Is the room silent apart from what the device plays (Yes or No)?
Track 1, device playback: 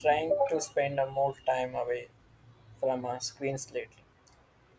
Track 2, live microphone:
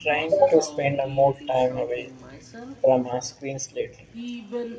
No